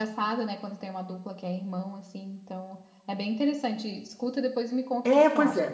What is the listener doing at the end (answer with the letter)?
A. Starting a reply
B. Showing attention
A